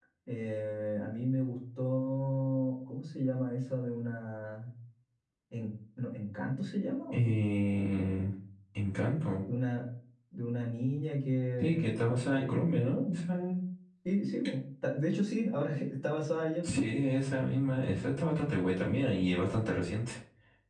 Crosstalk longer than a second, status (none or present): none